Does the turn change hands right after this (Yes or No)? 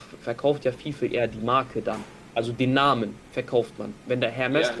Yes